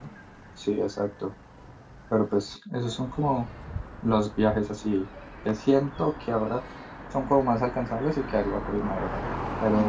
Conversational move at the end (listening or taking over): listening